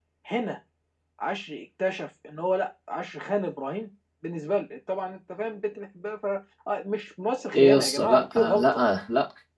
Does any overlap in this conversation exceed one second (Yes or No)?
Yes